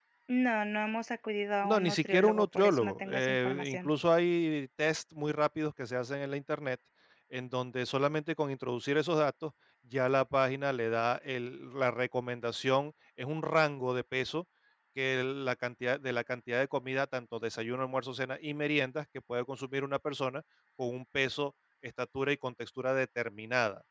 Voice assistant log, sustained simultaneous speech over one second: present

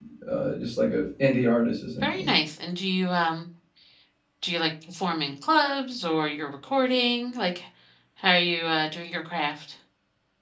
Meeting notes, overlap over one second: none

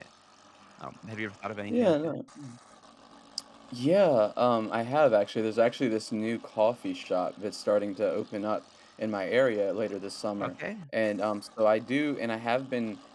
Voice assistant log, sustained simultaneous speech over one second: none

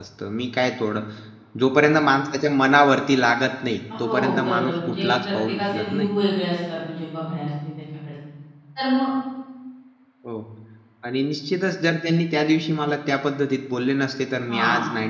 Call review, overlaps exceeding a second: present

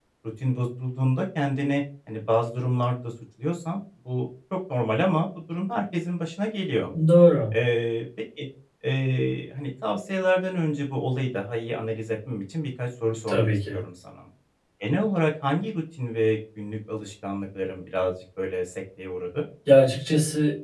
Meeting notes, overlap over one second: none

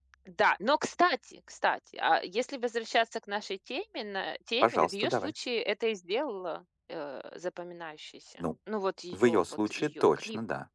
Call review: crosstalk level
present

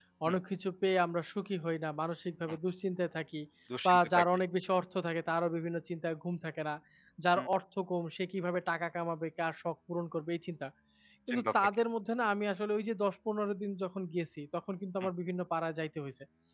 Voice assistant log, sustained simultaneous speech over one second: none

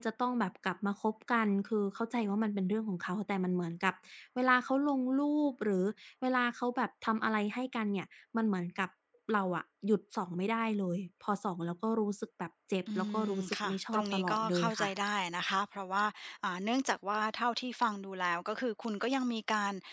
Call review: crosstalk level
present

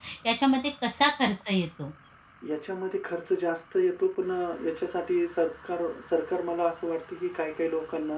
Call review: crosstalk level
none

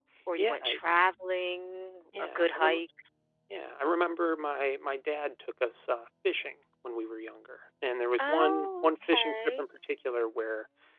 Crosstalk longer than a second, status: present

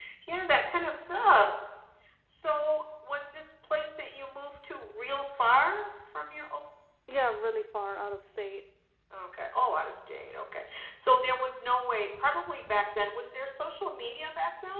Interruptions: none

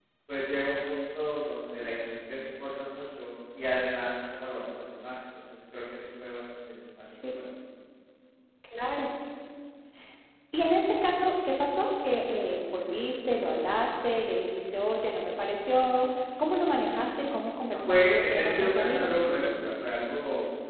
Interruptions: present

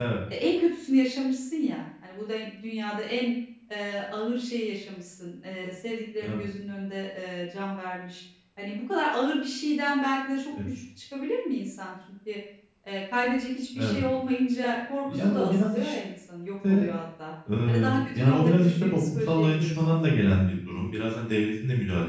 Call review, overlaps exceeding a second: present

